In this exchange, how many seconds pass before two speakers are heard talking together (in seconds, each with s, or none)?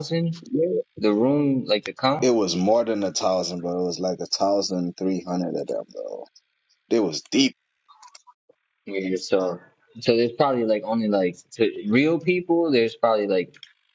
none